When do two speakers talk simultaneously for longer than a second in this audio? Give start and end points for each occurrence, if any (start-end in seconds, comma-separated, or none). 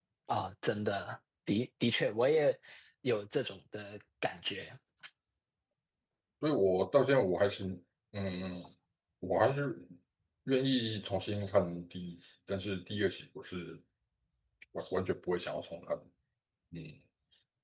none